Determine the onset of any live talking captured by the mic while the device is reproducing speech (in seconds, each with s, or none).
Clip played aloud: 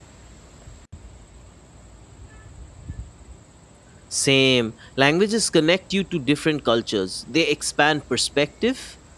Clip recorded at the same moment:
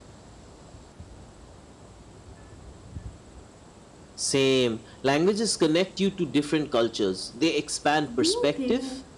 8.1 s